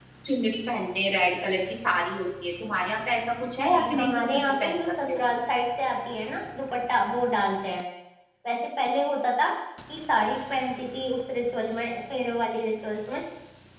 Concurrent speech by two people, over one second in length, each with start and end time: 3.7-5.3

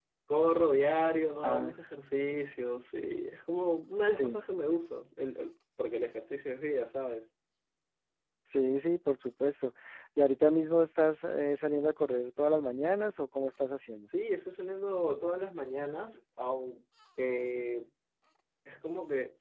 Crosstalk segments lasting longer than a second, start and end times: none

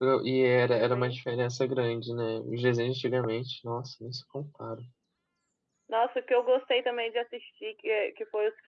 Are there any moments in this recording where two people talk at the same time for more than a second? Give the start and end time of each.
none

